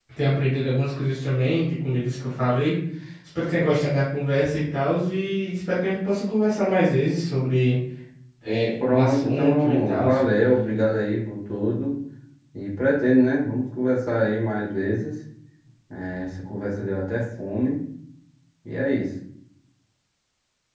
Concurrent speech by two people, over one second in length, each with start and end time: 8.9-10.1

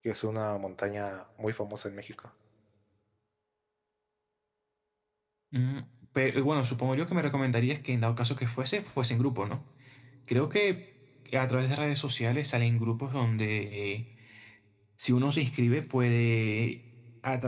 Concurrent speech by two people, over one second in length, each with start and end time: none

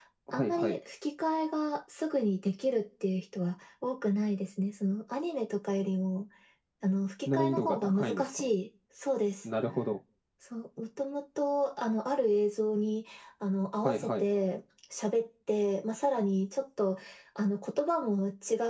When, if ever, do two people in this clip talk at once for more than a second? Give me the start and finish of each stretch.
7.3-8.5

